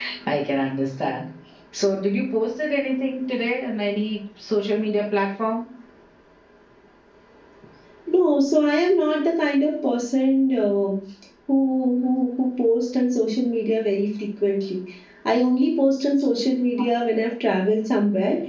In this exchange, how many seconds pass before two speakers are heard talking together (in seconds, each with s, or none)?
none